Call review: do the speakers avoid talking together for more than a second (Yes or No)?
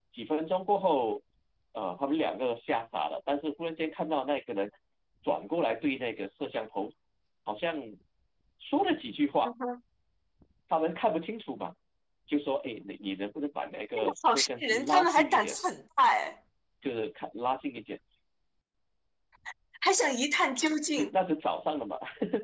No